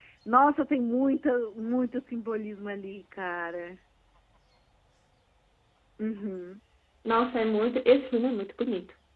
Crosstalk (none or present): none